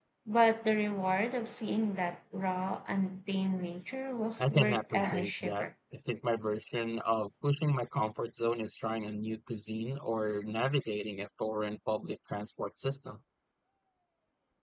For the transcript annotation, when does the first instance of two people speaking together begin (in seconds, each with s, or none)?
4.4 s